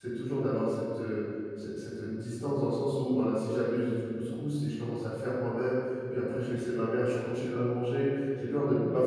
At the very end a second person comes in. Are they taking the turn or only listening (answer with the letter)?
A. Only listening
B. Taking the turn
A